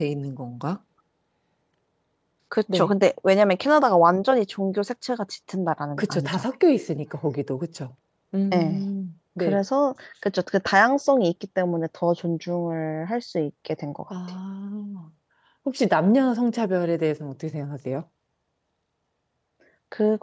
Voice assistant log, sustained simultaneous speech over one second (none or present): none